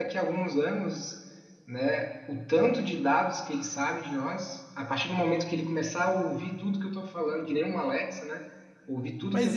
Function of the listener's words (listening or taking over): taking over